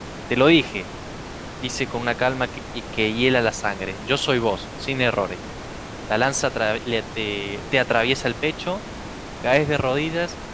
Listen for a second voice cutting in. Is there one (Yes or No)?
No